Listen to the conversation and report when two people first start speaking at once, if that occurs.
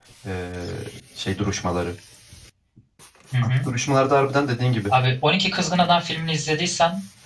none

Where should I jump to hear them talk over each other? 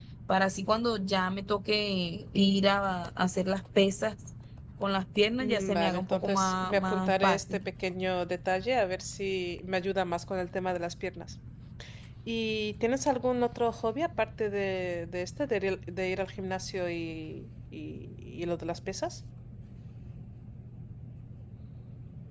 5.4 s

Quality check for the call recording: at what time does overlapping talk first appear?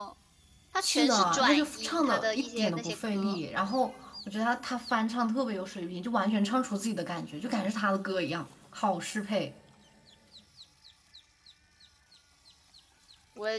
0.8 s

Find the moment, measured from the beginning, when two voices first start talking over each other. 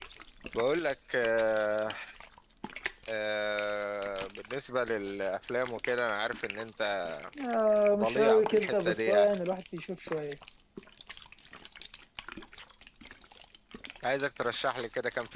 8.0 s

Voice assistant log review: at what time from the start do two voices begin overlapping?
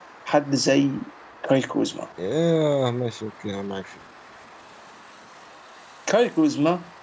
none

